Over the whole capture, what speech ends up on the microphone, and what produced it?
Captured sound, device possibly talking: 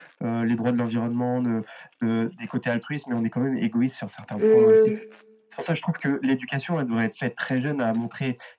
both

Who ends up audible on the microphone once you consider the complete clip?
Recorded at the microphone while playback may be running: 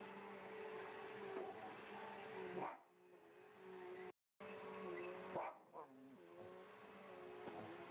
neither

